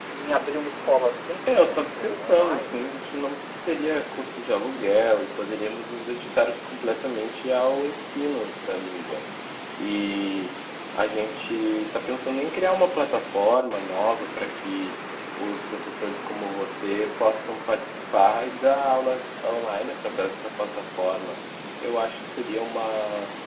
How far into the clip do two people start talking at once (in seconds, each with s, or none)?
1.5 s